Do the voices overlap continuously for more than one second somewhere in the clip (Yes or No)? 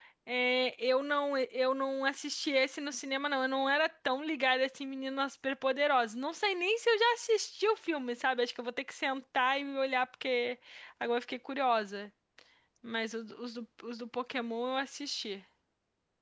No